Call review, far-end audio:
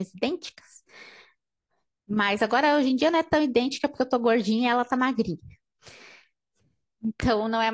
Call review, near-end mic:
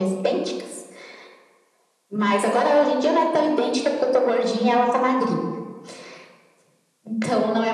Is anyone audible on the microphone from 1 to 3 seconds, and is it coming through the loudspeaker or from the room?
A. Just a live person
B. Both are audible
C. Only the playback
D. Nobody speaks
C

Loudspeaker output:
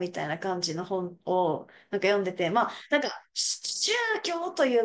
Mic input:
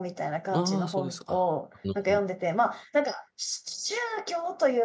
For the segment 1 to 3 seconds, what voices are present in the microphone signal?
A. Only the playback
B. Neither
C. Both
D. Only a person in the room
C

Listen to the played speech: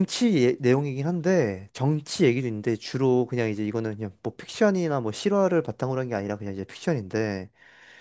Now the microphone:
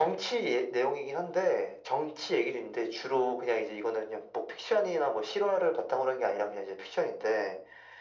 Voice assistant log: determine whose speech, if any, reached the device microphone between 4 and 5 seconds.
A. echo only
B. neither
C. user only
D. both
A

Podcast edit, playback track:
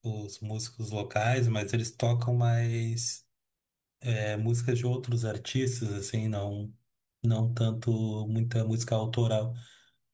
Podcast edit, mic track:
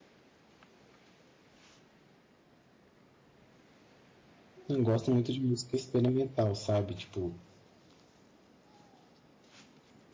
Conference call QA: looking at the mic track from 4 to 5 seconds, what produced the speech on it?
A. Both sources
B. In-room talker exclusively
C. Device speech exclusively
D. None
B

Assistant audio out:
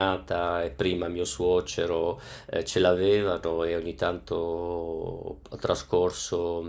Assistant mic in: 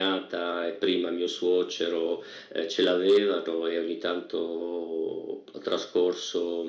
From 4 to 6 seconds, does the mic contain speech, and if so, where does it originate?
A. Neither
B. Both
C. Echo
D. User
C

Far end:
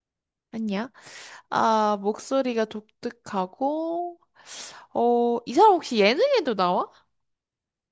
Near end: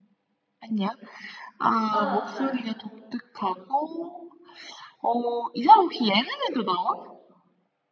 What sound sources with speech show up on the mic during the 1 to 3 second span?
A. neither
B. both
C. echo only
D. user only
B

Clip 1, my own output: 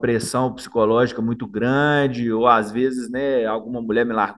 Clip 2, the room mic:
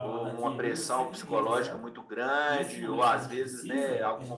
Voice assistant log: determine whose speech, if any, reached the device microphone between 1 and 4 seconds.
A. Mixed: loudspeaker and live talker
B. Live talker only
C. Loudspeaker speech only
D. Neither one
A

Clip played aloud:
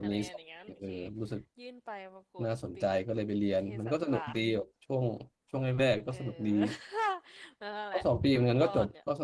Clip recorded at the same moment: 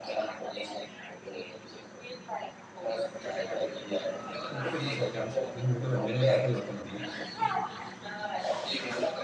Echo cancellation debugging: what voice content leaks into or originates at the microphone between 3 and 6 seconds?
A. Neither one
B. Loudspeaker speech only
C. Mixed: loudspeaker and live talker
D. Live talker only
C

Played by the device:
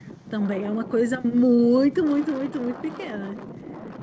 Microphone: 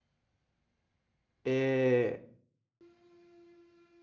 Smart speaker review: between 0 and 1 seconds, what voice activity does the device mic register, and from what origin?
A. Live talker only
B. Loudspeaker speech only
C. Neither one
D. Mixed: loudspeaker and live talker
C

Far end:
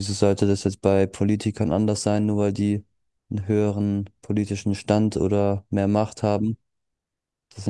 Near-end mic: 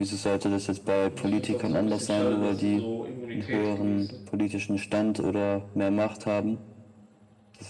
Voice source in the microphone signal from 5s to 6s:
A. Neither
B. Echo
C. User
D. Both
B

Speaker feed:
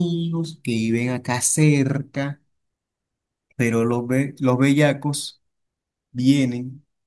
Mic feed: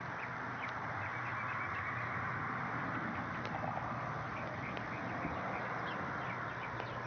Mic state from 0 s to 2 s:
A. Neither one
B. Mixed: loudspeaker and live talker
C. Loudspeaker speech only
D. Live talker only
A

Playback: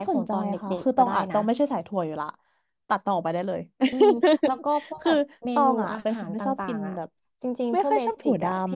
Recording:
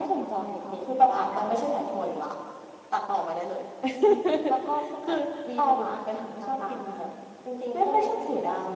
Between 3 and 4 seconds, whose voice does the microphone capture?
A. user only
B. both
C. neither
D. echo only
D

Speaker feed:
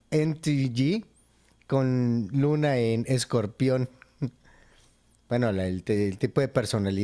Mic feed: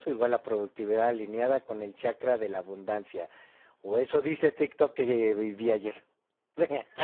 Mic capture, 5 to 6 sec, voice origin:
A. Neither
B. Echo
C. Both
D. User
D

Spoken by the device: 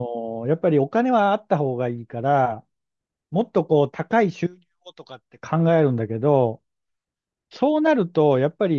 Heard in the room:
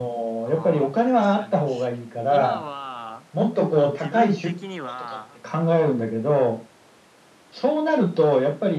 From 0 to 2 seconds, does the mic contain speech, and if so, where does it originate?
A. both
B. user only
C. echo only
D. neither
A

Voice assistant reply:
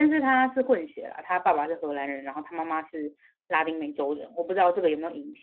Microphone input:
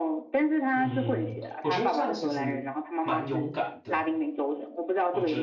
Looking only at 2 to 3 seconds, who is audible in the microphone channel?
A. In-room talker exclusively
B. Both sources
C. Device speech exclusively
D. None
B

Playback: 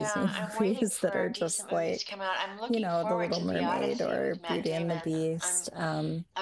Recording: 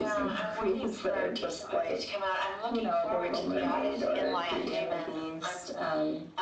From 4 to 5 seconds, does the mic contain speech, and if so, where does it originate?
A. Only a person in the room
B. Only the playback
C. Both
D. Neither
C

